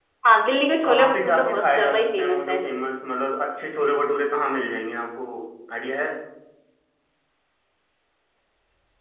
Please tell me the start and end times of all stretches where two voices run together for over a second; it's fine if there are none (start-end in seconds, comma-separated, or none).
0.7-2.6